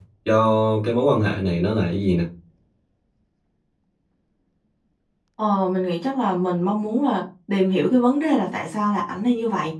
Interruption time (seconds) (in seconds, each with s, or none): none